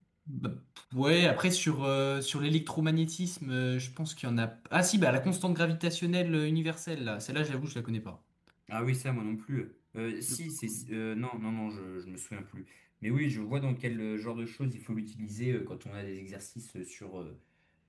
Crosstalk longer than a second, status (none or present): none